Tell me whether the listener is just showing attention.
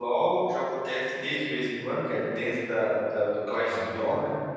No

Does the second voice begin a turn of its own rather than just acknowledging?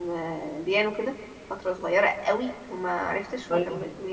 No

